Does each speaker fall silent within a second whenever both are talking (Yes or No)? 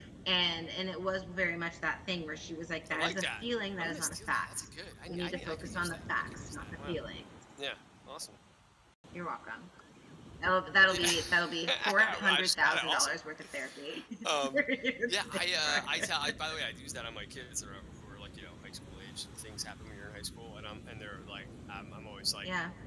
No